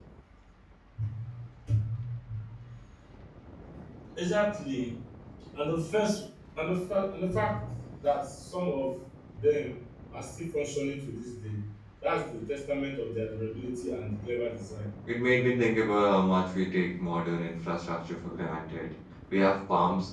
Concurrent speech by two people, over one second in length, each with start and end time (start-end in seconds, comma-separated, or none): none